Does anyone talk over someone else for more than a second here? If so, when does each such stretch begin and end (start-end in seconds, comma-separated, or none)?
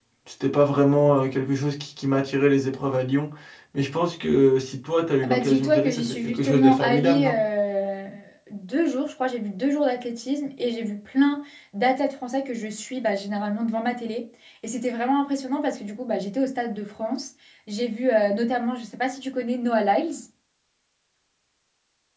5.2-7.4